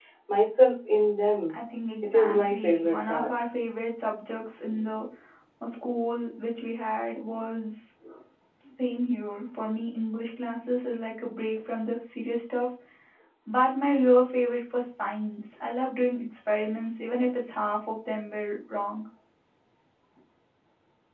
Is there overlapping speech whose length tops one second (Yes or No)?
Yes